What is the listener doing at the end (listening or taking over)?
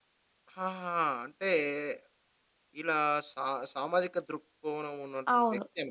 taking over